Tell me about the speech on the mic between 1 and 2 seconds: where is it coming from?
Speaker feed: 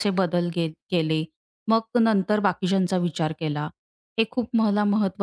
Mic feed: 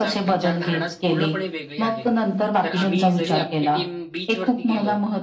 both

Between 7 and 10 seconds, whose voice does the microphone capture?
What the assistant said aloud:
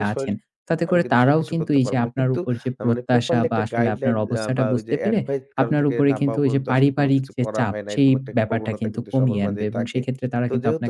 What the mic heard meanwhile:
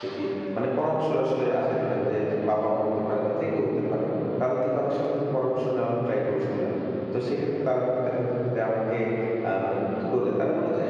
user only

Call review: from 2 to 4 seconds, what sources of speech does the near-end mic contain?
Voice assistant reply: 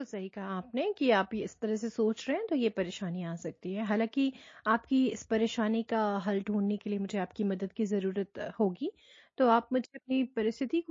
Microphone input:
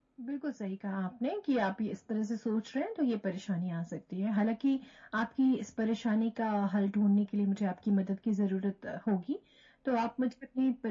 echo only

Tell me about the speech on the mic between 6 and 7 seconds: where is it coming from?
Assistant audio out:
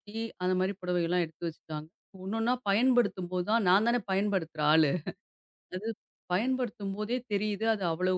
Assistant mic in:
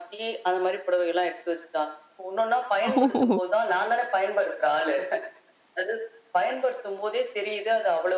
echo only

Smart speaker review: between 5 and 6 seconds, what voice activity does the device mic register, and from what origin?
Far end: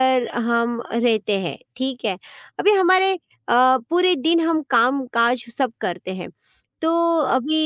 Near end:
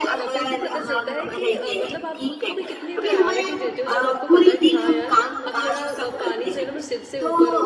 both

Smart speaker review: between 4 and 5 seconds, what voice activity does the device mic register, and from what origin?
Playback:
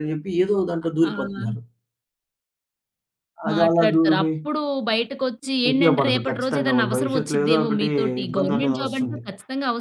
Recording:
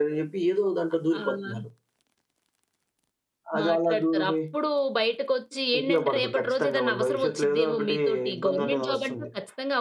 echo only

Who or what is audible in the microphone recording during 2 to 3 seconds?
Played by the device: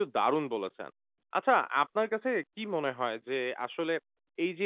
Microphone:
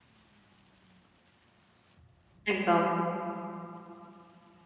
user only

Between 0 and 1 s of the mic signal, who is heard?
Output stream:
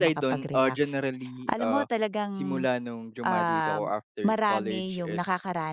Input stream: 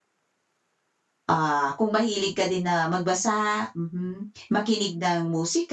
neither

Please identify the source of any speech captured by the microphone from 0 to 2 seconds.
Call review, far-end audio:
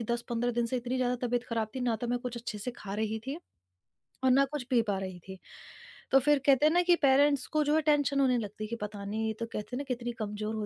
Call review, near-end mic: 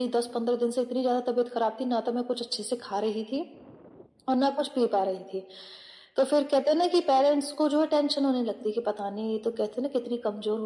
echo only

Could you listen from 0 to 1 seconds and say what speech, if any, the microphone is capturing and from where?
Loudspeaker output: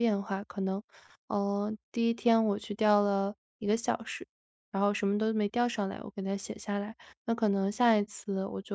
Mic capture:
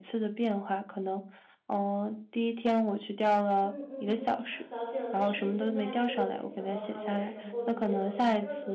echo only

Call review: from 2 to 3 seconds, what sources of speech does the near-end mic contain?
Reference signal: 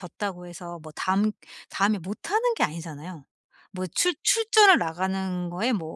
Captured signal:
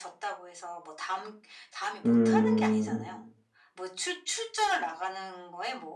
both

